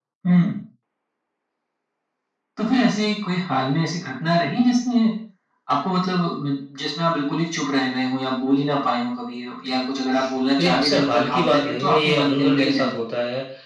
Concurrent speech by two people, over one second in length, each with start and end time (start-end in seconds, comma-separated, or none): 10.6-13.0